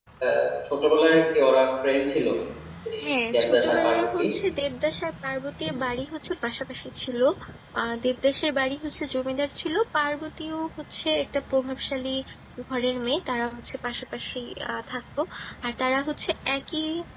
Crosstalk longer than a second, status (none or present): present